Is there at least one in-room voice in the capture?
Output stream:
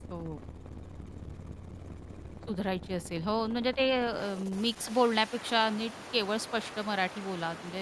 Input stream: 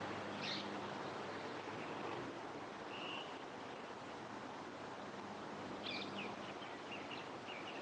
No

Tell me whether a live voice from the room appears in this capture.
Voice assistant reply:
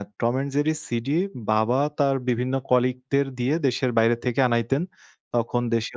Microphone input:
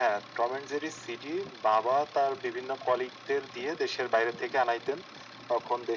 No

